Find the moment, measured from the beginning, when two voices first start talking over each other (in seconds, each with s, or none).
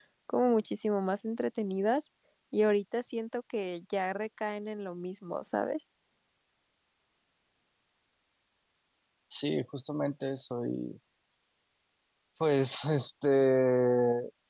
none